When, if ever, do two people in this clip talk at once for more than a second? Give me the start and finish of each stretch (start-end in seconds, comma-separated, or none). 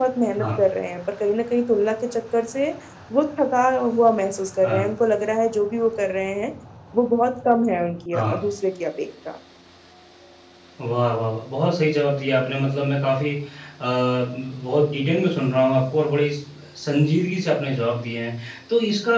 none